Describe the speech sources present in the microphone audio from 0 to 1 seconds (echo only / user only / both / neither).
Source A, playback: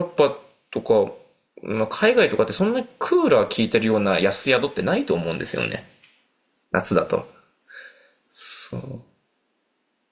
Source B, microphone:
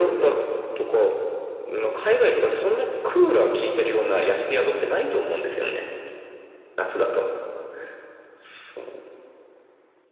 echo only